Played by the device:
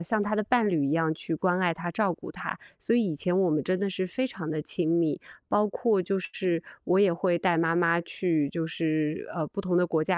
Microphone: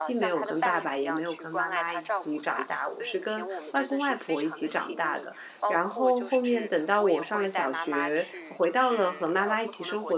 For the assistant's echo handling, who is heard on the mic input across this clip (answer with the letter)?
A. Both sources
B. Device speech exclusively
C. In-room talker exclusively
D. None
A